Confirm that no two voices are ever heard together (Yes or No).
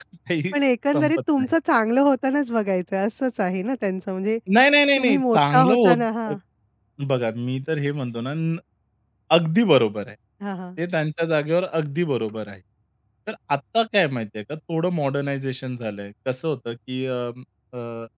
No